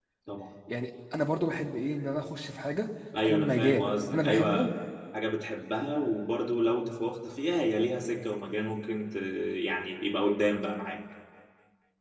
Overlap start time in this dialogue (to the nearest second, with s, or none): 3 s